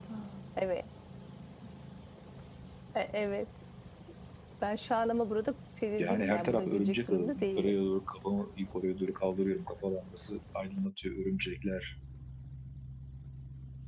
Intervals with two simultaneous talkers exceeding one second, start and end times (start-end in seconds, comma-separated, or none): 6.0-7.7